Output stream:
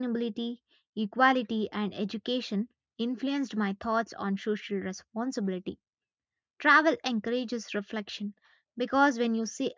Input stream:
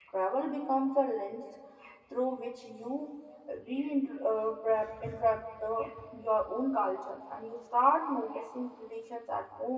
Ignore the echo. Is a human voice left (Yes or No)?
Yes